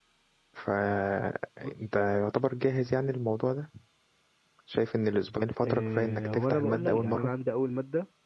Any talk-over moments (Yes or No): Yes